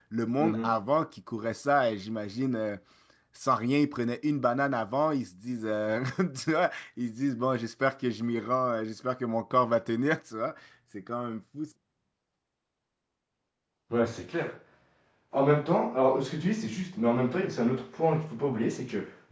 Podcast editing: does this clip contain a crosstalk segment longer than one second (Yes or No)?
No